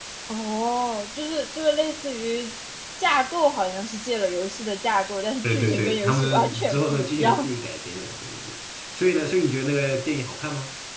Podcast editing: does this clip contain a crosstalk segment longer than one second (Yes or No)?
Yes